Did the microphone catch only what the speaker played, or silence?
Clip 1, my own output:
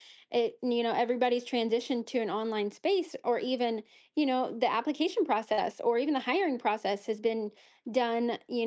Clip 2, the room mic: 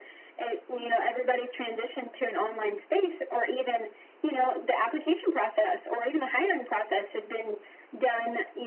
Yes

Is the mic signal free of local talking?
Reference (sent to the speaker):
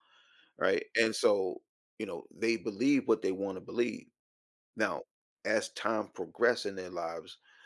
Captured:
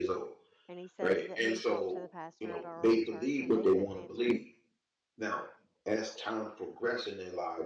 No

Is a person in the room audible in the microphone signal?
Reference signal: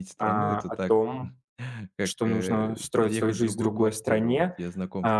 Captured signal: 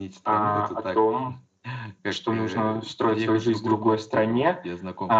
No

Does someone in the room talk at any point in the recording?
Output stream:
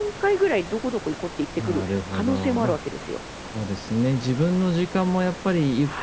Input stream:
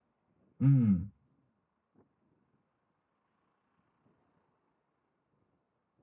Yes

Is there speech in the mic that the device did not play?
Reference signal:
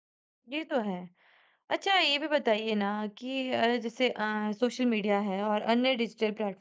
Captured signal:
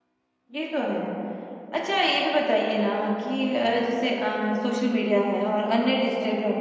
No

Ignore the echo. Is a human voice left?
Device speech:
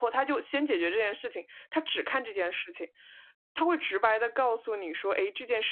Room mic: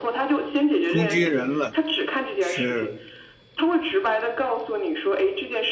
Yes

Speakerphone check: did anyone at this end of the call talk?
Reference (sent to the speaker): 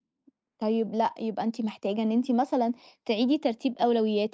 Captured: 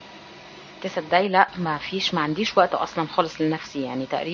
Yes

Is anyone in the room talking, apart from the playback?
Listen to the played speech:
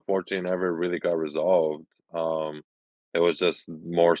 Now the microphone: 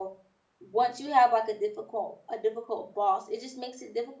Yes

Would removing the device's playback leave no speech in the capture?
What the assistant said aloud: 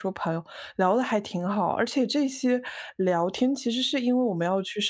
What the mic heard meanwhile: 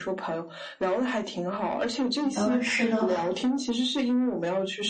No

